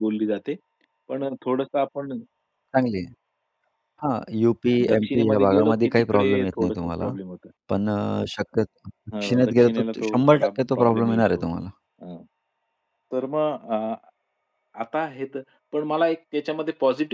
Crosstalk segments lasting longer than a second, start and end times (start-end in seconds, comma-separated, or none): 4.8-7.1, 9.2-11.4